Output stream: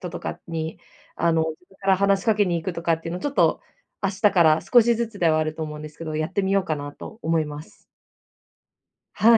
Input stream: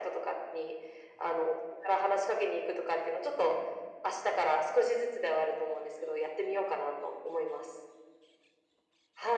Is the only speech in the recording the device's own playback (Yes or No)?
Yes